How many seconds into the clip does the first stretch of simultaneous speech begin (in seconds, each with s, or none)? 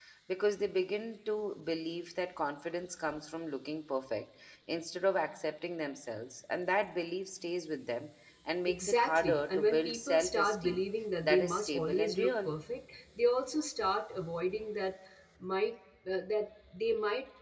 8.7 s